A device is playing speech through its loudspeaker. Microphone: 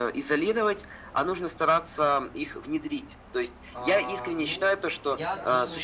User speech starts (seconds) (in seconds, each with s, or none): 3.7 s